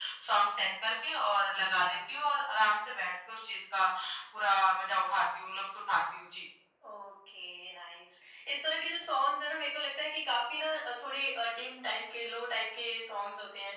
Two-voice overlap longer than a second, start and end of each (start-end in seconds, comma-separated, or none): none